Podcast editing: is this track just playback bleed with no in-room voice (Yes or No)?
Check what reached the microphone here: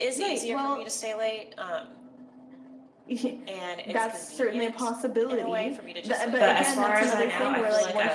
No